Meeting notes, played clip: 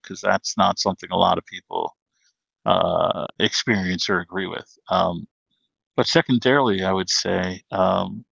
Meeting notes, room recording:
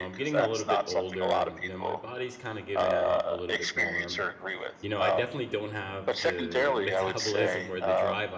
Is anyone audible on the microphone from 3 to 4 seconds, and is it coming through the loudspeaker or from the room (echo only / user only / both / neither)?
both